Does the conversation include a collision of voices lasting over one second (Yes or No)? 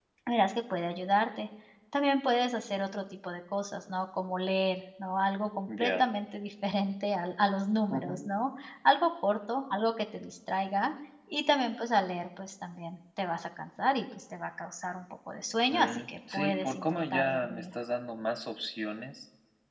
Yes